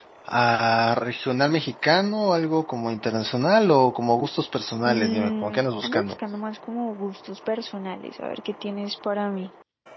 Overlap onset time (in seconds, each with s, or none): 4.8 s